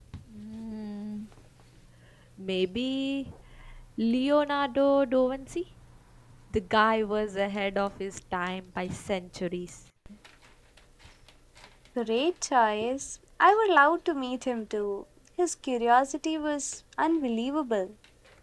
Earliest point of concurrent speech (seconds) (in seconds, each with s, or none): none